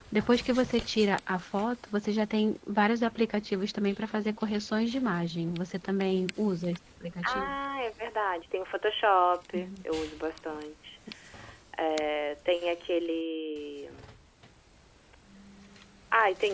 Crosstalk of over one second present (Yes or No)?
No